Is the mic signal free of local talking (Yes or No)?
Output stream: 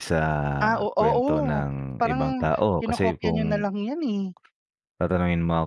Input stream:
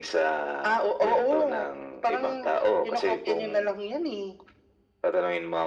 Yes